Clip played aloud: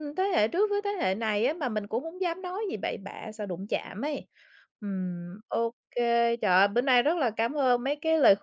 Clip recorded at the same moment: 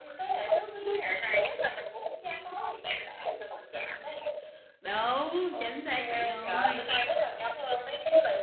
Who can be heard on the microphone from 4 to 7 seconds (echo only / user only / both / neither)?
both